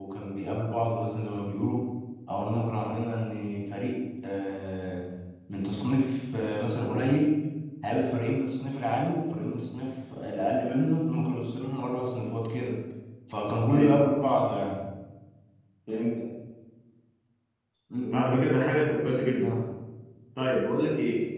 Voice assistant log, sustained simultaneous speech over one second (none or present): none